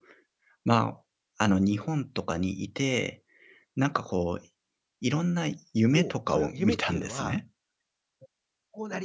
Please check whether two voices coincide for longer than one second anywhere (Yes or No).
Yes